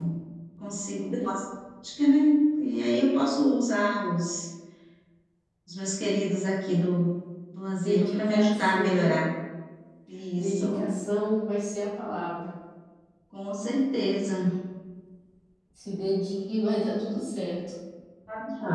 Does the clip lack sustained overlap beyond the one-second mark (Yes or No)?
No